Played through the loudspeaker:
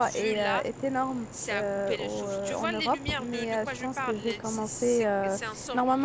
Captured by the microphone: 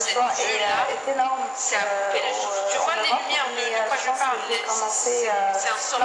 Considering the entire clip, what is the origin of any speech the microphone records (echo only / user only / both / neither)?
echo only